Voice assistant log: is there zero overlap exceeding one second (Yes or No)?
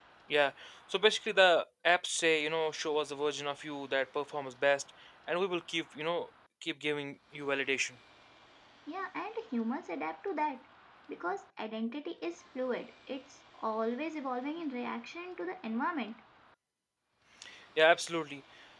Yes